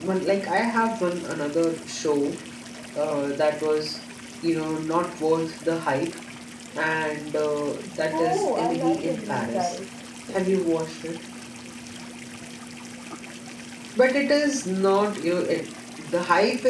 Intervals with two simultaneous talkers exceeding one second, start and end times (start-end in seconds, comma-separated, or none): 8.1-9.8